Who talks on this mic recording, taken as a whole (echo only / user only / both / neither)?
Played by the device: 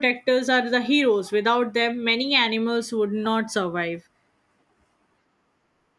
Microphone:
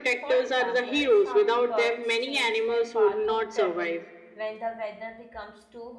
both